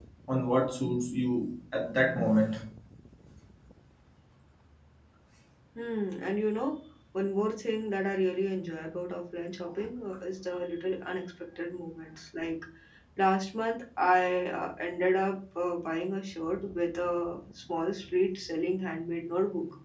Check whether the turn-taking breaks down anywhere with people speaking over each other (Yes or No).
No